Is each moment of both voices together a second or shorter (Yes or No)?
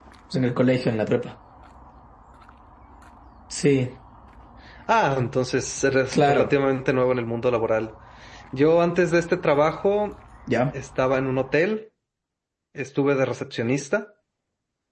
Yes